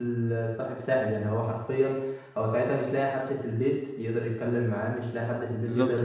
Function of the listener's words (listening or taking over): listening